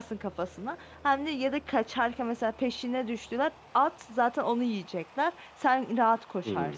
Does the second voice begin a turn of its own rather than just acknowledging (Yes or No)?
Yes